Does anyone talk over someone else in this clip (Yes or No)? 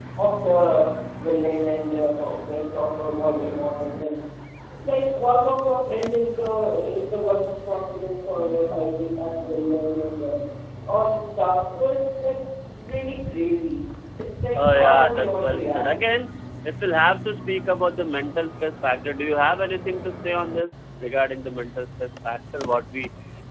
Yes